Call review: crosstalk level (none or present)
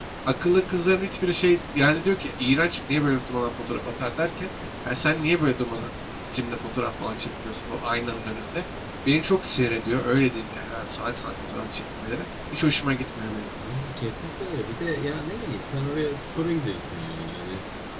none